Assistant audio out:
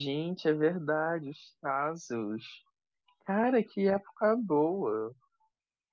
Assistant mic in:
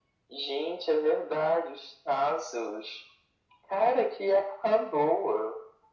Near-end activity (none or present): none